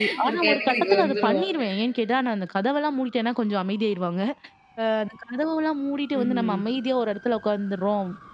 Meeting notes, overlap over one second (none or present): present